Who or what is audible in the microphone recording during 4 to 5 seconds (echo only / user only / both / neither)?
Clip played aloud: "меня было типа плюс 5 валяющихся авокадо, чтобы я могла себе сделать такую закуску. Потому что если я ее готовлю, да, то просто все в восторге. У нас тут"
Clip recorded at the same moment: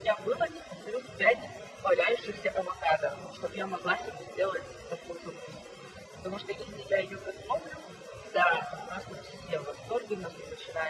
echo only